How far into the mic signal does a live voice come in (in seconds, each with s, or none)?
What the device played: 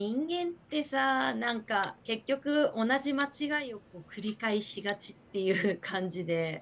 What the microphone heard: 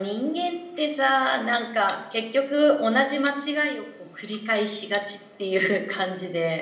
none